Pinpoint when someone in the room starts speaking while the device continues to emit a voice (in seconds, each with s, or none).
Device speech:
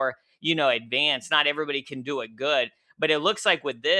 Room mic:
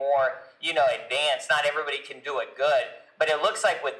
none